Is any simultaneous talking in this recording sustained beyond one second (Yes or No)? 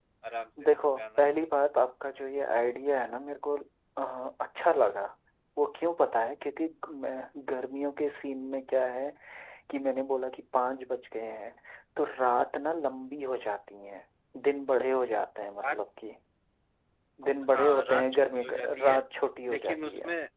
Yes